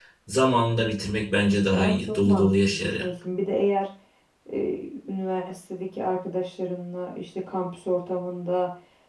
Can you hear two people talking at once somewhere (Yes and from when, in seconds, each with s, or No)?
Yes, from 1.7 s